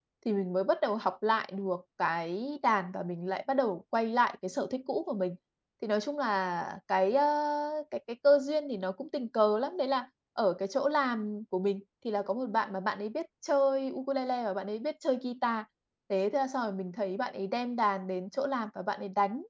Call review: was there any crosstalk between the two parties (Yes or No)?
No